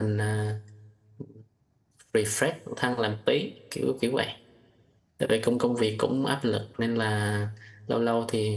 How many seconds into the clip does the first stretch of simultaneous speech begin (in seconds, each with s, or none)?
none